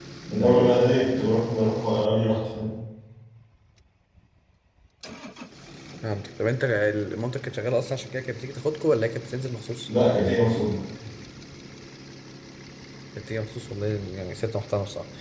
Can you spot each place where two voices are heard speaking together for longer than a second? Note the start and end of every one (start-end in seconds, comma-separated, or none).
none